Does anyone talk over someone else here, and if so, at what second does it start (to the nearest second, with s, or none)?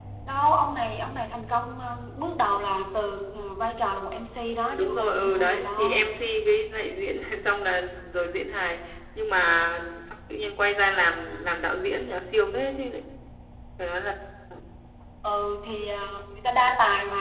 5 s